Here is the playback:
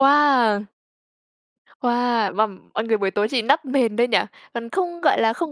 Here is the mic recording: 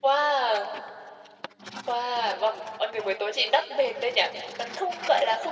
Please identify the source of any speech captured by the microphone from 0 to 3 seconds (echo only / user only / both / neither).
echo only